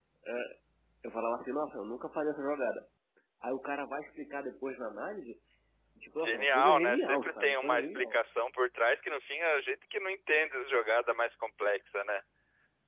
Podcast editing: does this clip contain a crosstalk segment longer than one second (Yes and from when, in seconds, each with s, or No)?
Yes, from 6.2 s